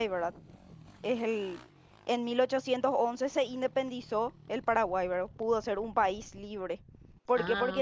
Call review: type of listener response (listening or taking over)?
listening